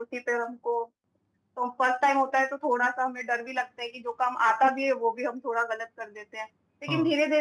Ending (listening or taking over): listening